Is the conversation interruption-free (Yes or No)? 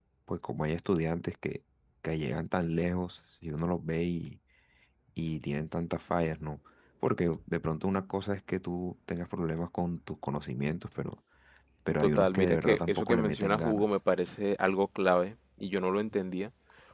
No